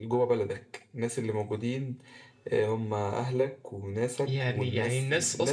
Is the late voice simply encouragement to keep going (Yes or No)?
No